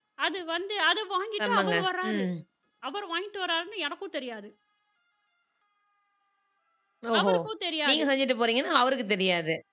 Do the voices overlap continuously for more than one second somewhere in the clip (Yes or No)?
No